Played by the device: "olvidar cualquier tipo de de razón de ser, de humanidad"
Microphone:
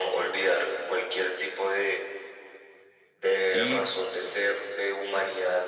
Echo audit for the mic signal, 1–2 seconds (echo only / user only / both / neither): echo only